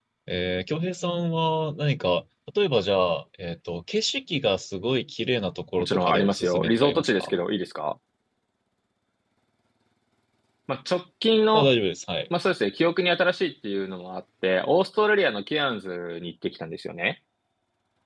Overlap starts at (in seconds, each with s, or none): 5.8 s